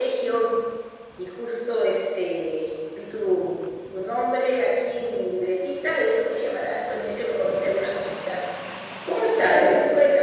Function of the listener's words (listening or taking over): taking over